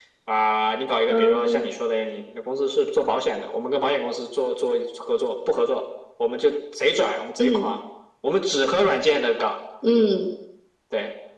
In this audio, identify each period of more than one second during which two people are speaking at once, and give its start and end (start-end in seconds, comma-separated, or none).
none